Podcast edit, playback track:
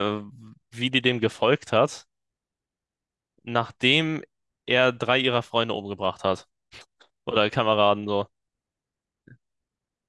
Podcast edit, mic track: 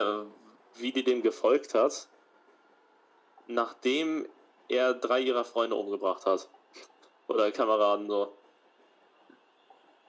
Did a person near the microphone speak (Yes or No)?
No